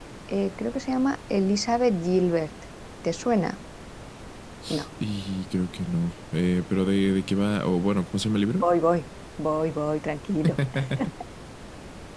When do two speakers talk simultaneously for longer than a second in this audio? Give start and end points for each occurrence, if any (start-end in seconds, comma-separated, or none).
none